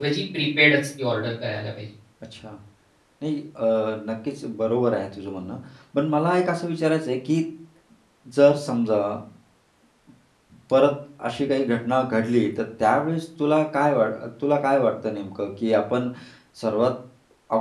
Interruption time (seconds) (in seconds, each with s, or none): none